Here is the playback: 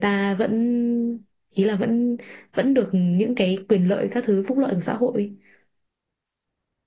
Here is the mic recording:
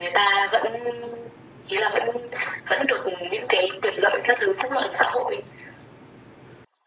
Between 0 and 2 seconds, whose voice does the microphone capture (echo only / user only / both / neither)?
echo only